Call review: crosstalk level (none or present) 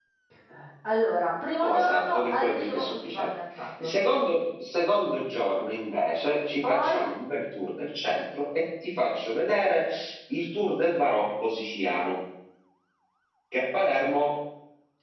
present